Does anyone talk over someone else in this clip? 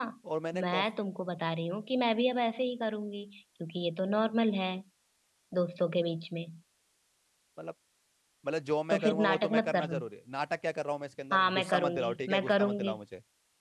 Yes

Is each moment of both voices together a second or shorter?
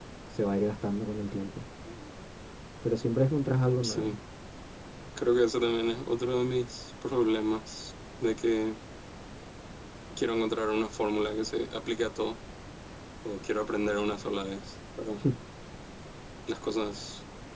Yes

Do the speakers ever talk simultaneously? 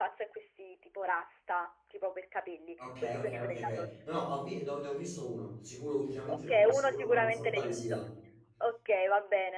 Yes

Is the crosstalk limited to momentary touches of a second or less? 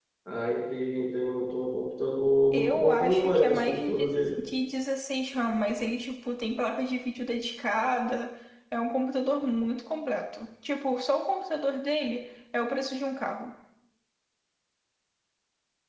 No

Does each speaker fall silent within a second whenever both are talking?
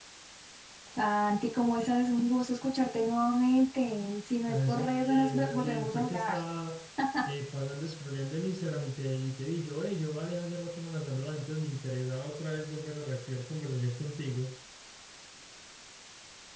No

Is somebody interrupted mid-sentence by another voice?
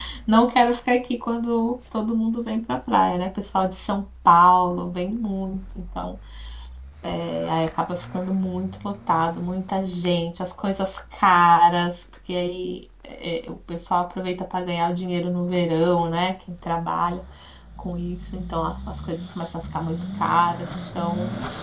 No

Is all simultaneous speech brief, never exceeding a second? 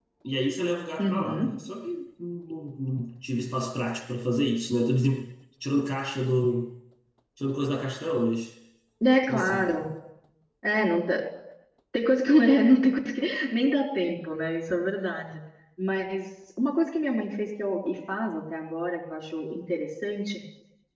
Yes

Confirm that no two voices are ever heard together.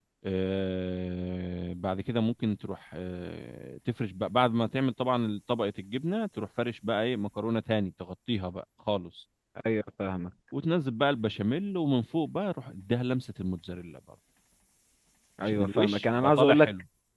No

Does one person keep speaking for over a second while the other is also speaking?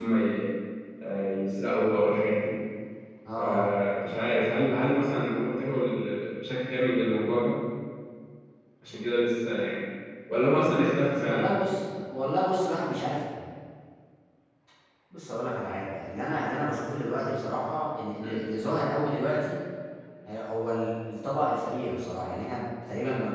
No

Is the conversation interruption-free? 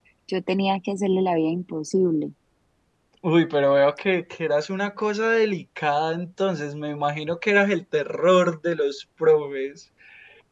Yes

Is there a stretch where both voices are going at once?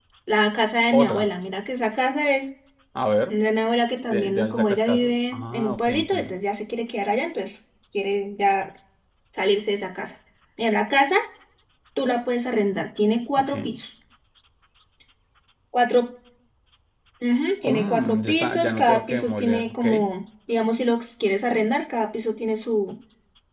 Yes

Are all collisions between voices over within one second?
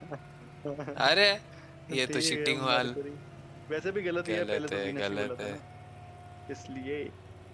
No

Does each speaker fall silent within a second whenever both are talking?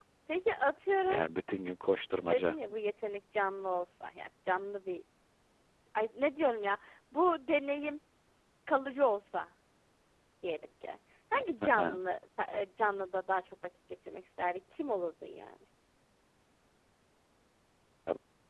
Yes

